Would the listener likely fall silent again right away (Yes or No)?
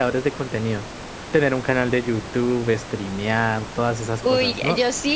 No